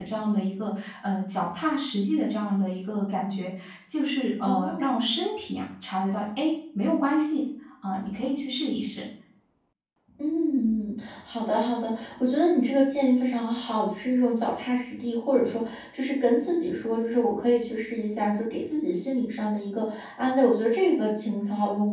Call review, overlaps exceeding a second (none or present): none